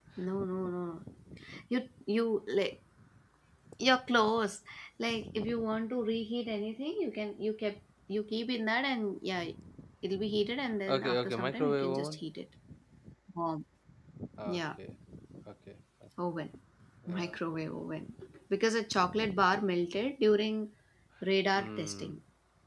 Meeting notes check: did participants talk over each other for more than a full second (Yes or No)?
Yes